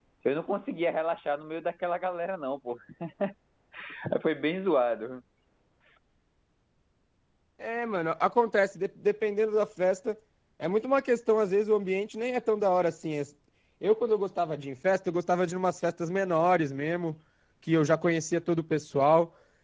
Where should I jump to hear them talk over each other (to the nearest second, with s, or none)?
none